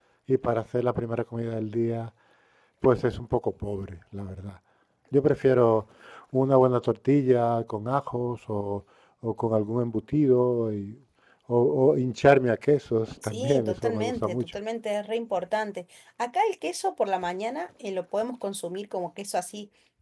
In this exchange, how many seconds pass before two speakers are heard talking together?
13.2 s

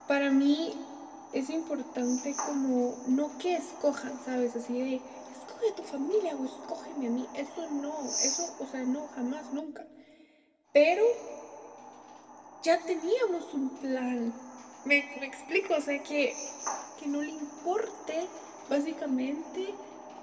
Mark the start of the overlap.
none

